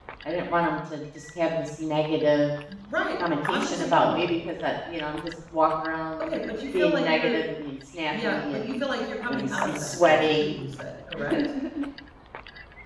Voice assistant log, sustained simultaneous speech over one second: present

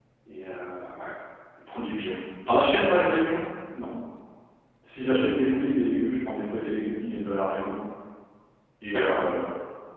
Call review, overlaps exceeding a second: none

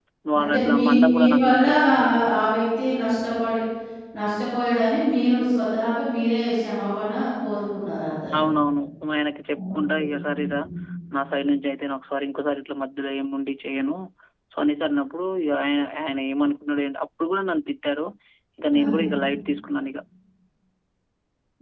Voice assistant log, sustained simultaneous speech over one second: present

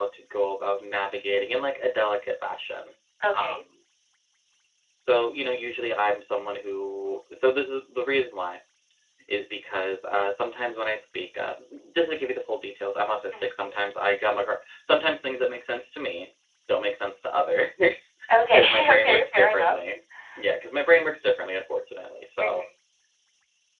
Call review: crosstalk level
present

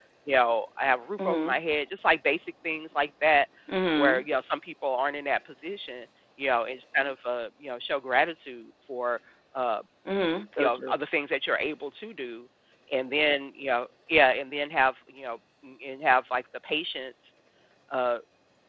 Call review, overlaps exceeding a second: none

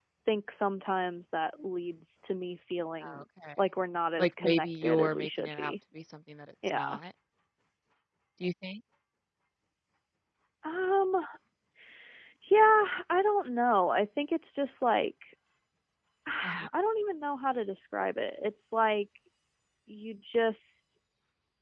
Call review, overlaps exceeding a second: present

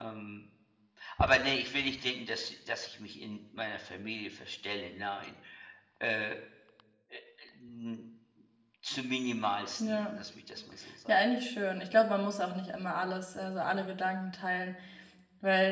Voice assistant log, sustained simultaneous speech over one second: none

